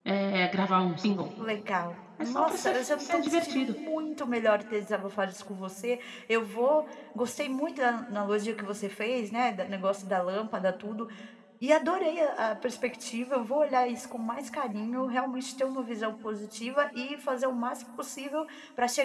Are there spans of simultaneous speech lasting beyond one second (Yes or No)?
Yes